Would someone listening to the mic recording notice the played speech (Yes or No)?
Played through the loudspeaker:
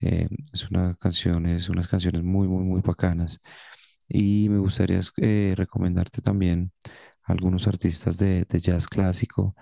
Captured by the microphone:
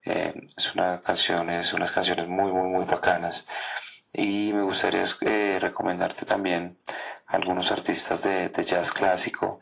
Yes